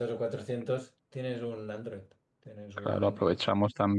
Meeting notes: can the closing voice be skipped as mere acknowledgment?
No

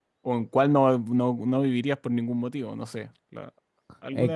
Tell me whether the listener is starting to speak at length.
Yes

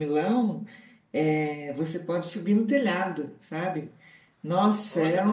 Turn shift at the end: No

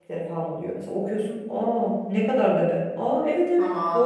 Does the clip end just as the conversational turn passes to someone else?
Yes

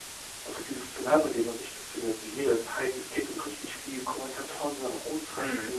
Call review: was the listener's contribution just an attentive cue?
Yes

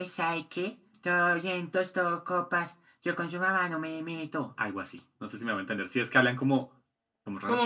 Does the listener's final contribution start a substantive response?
Yes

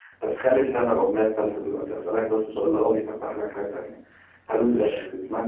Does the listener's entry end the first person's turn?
No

